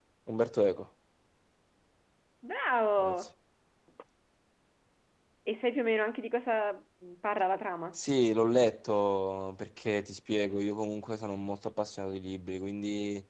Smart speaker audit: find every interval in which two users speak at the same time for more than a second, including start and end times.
none

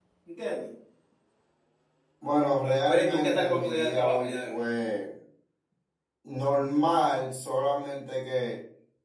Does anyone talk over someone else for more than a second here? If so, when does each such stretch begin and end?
2.9-4.6

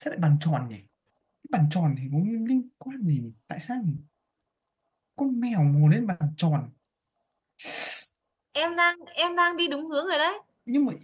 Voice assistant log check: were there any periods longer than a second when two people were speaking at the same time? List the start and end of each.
none

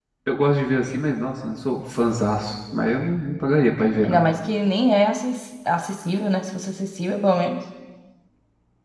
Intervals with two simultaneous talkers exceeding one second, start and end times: none

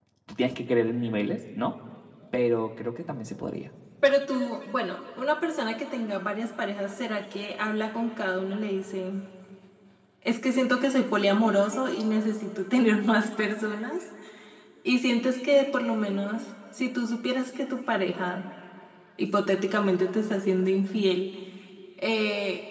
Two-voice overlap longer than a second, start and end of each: none

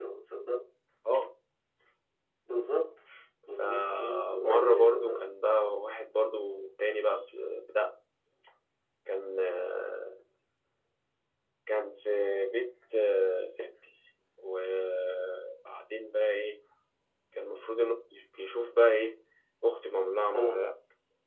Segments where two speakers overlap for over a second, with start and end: 3.6-5.2

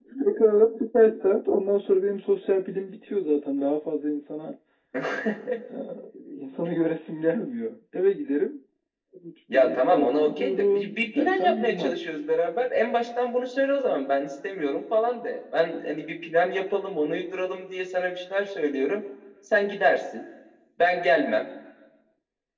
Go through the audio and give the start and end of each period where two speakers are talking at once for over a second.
9.5-11.9

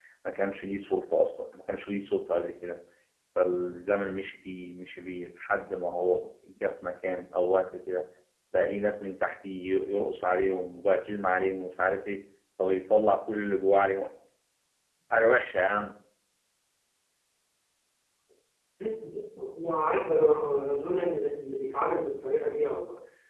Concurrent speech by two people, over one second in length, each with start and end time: none

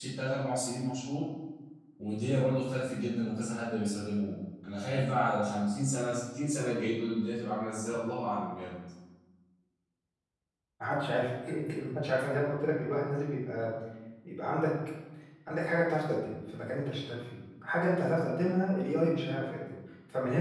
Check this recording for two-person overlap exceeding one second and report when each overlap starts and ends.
none

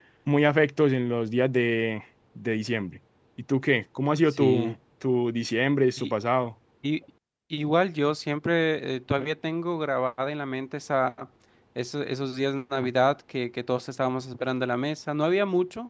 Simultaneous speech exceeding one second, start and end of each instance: none

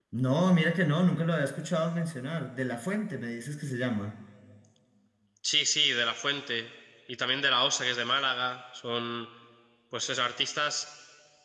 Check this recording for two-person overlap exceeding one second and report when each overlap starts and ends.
none

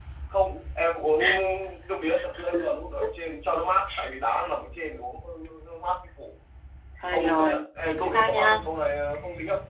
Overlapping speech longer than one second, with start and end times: 7.1-8.6

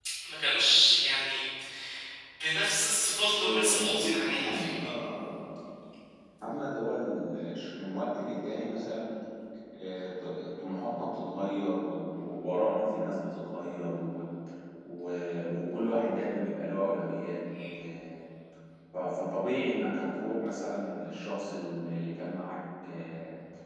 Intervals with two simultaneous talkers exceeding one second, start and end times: 3.4-4.8

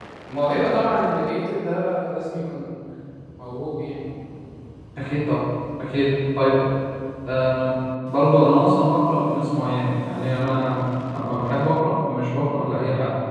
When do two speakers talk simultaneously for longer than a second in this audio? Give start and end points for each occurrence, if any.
none

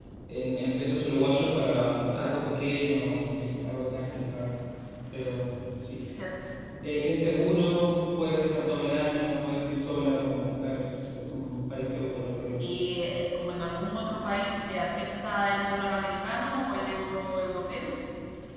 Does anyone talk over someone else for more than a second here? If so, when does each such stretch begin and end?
none

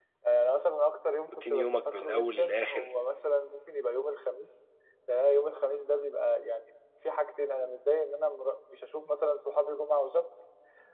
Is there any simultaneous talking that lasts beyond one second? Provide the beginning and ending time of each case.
1.3-2.9

